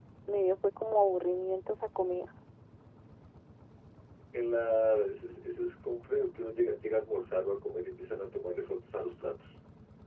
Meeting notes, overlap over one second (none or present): none